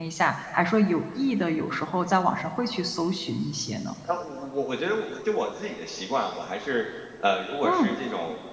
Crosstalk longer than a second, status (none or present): none